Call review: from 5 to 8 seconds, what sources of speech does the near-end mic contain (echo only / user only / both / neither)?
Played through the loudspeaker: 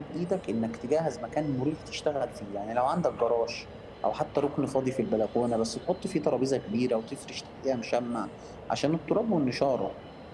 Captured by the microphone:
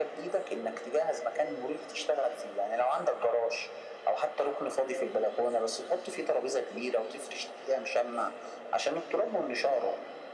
echo only